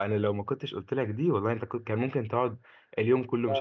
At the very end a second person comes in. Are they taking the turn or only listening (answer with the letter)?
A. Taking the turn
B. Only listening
A